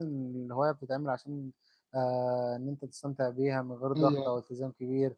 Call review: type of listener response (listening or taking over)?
listening